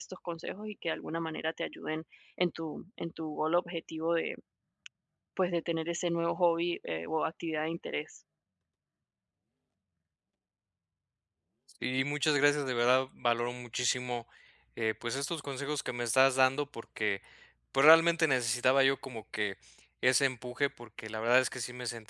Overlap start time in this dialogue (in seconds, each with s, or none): none